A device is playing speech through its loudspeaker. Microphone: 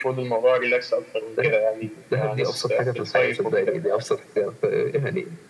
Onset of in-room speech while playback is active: none

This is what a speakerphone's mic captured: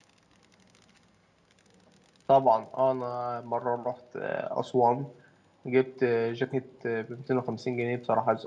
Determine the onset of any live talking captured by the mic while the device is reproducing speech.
2.3 s

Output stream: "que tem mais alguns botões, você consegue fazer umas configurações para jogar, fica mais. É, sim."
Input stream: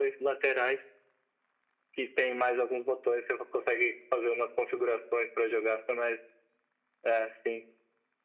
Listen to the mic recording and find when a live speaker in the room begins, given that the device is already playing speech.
none

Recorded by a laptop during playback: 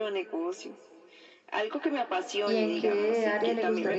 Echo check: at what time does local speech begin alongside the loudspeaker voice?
2.4 s

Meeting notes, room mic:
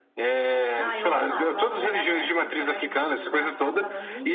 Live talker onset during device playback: 0.8 s

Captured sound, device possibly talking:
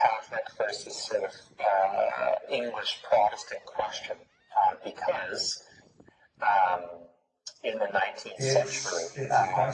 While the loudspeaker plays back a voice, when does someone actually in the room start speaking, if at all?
8.3 s

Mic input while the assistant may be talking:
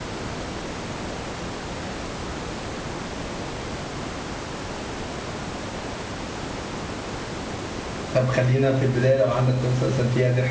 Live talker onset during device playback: 8.1 s

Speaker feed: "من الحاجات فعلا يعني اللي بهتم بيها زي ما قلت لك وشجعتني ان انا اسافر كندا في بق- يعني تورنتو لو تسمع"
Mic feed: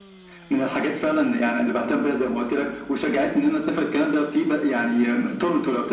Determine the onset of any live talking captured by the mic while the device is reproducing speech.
none

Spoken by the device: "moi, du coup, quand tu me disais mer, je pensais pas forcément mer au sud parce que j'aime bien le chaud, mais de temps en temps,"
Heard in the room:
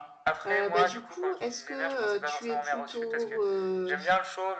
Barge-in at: 0.5 s

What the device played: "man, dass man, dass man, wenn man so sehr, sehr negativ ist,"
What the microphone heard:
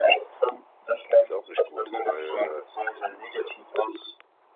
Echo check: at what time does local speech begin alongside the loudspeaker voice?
1.2 s

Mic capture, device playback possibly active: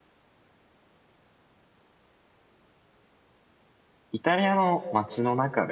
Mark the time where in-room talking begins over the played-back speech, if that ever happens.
4.1 s

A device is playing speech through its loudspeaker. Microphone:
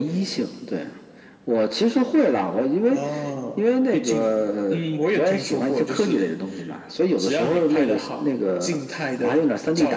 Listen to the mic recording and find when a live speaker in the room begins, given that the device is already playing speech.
none

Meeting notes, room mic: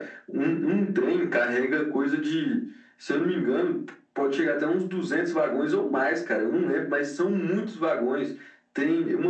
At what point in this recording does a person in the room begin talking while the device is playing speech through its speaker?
none

